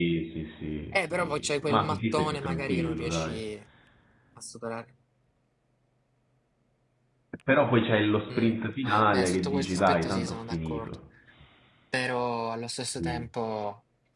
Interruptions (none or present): present